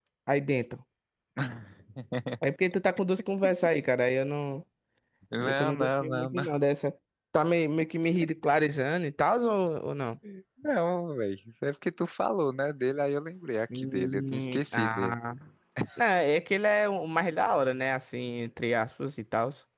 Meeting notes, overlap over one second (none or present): present